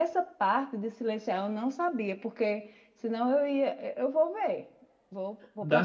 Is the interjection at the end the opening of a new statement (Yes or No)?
Yes